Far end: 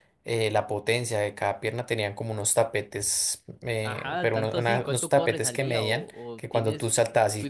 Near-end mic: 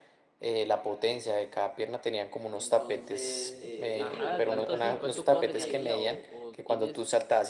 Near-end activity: present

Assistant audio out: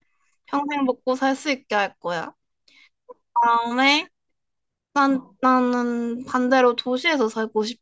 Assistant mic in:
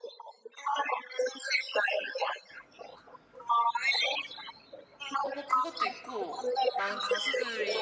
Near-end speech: present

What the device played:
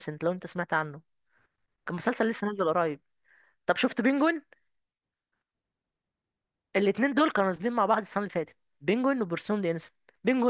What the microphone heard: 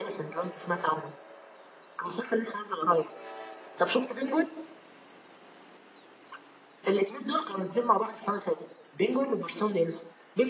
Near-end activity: none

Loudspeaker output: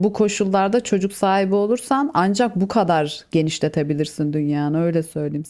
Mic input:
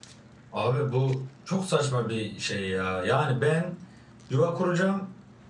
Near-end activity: present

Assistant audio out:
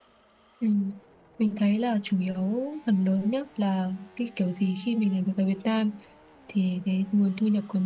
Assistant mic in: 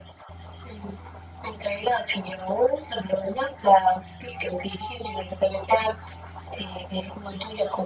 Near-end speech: none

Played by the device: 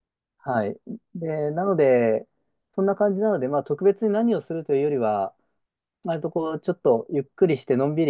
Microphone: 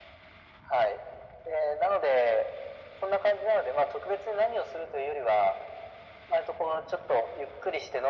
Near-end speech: none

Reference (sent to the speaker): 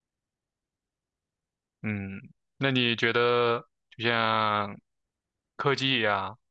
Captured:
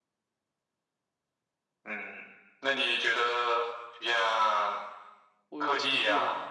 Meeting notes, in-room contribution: present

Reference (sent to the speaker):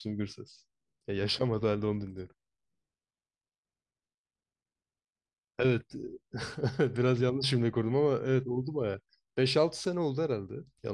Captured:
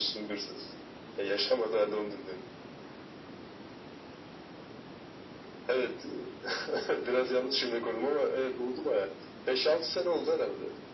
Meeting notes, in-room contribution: none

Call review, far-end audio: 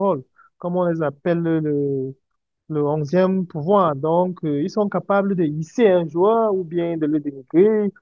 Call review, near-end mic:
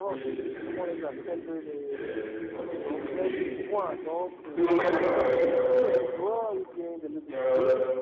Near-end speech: present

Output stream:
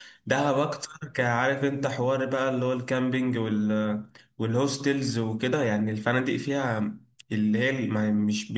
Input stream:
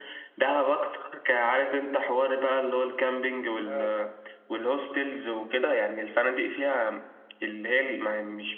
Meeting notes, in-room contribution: present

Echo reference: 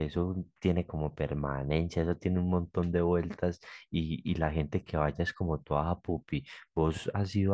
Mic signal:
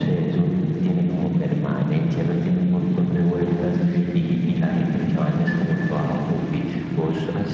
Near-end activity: none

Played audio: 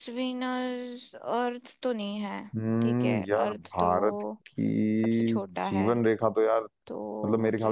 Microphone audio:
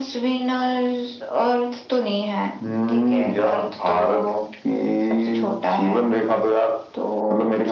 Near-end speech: none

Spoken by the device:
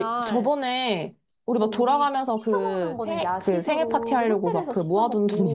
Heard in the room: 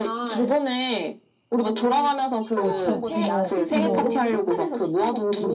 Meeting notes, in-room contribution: present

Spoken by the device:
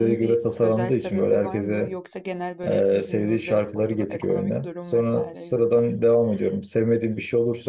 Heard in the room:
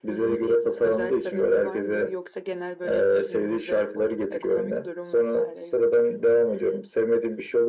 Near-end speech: none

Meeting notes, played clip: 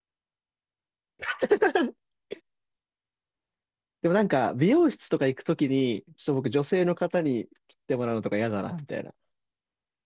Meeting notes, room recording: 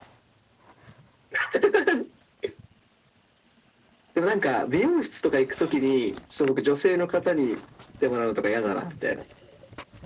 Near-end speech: none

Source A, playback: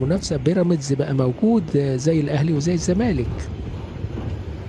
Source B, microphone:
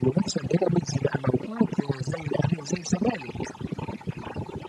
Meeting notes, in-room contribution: none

